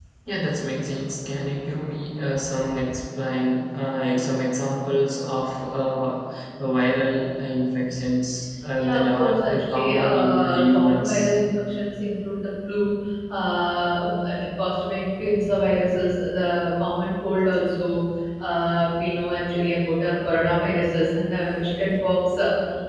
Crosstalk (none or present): present